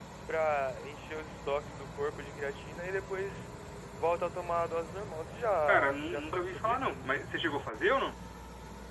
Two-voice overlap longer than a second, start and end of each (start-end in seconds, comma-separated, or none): 5.7-7.0